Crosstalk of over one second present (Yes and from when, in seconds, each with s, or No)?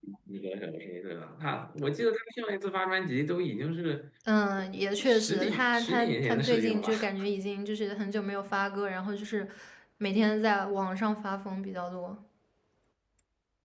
Yes, from 5.0 s